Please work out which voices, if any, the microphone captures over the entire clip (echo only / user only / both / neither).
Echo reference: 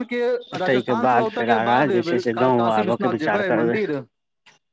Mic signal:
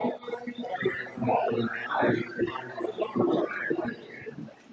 echo only